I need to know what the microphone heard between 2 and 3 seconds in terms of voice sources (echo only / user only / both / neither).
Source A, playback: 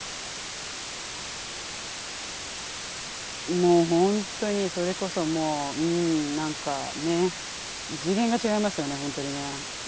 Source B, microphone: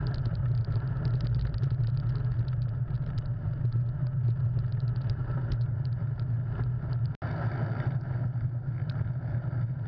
neither